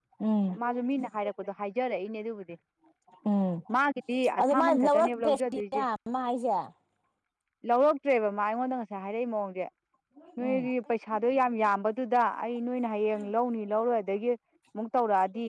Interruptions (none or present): present